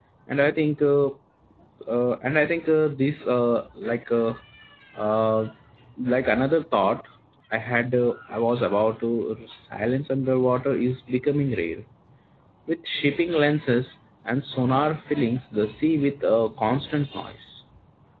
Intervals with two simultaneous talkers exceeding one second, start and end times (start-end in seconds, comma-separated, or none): none